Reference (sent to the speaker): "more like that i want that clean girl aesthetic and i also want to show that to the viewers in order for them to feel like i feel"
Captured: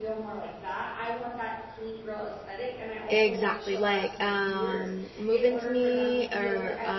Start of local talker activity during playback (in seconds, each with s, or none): 3.1 s